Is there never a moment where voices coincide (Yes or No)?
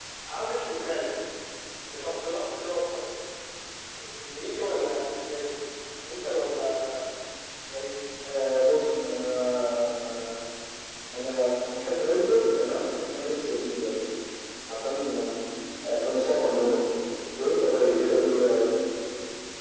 Yes